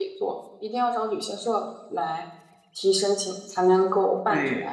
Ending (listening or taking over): taking over